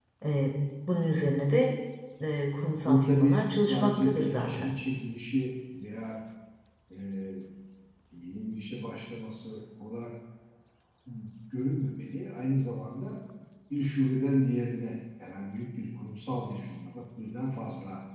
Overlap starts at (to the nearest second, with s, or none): 3 s